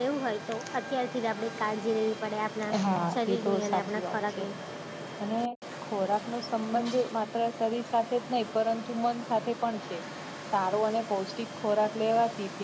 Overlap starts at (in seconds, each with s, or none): 3.1 s